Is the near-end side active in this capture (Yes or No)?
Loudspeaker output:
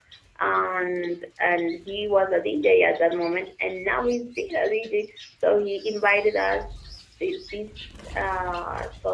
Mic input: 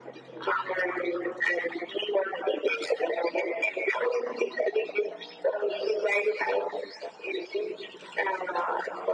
No